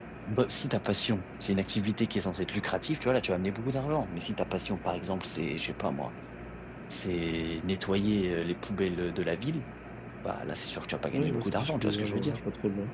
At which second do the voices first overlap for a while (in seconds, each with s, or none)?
11.1 s